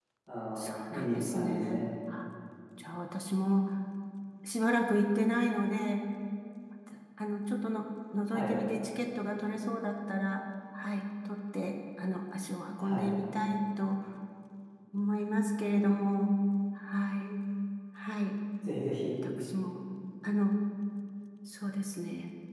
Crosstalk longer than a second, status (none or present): present